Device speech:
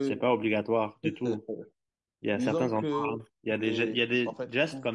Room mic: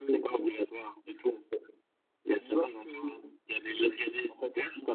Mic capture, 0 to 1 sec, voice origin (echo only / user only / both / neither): echo only